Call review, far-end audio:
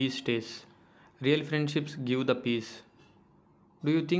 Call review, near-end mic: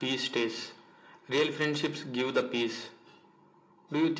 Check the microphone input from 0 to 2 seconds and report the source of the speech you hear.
echo only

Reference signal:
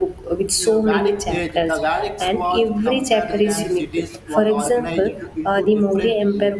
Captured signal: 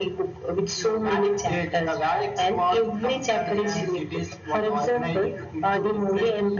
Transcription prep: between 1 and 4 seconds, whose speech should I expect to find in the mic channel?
echo only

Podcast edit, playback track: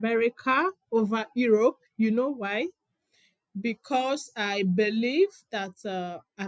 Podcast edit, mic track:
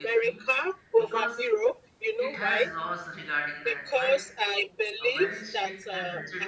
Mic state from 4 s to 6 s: both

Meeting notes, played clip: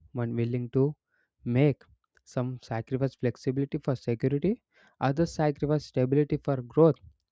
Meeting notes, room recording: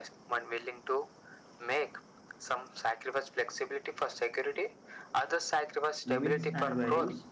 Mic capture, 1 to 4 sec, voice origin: echo only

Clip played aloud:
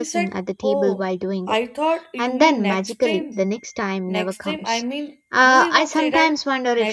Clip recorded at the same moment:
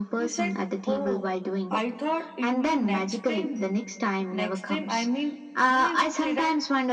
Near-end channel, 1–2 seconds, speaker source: echo only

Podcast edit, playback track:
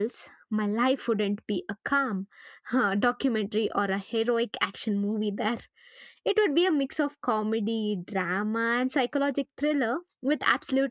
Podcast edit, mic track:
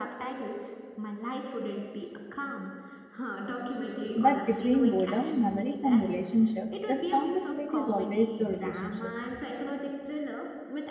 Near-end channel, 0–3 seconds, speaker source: echo only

